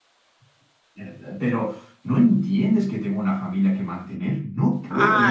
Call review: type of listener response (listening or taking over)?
taking over